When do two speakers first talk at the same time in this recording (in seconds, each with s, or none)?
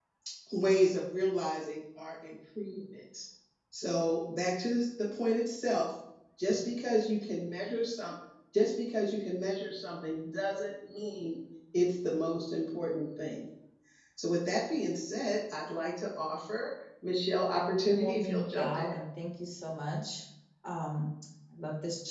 17.7 s